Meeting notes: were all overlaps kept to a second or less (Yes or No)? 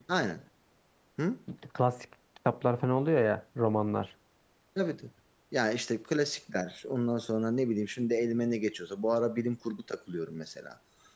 Yes